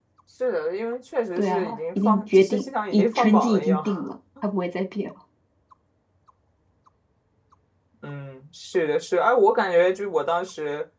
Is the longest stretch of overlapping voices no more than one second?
No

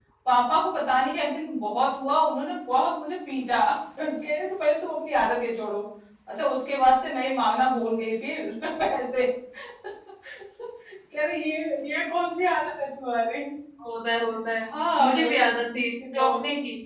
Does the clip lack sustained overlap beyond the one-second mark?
Yes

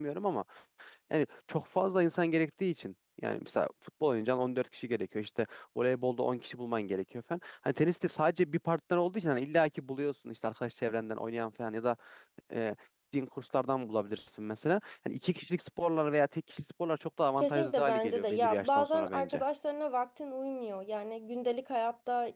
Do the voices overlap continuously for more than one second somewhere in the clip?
Yes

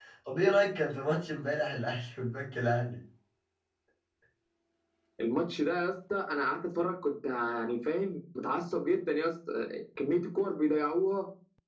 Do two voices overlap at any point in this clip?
No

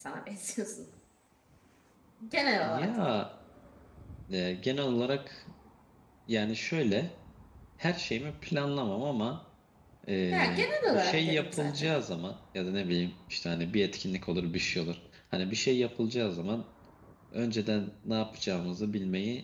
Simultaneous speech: Yes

